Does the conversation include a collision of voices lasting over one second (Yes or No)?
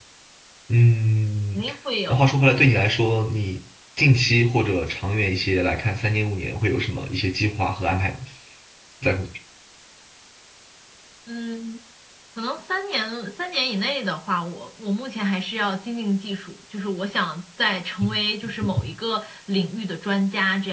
No